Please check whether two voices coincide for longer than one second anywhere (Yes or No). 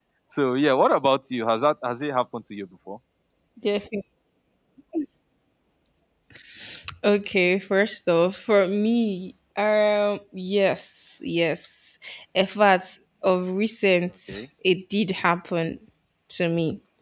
No